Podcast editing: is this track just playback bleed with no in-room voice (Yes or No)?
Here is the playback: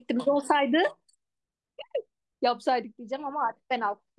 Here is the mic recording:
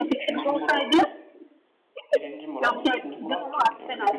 No